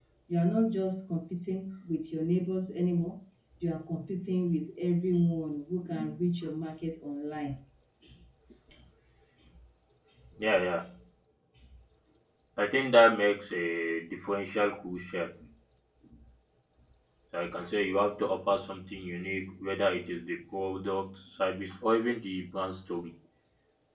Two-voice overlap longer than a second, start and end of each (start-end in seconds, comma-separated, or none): none